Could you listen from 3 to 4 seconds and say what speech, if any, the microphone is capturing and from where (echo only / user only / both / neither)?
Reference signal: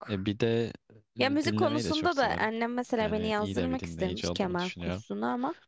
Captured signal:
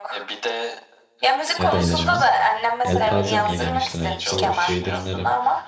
both